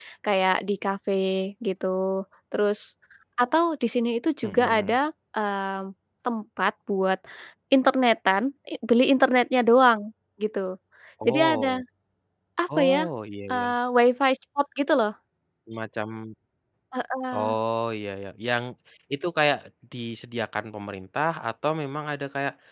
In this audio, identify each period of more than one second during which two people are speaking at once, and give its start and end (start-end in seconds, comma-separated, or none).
none